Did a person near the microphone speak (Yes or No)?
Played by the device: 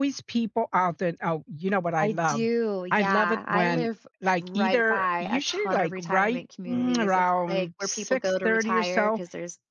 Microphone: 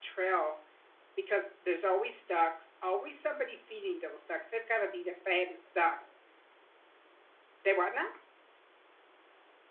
Yes